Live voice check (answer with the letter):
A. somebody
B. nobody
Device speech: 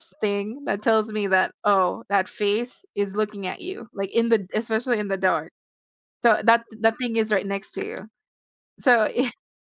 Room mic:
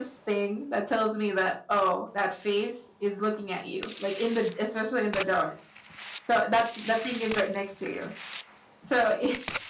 B